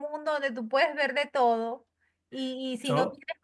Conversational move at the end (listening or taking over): listening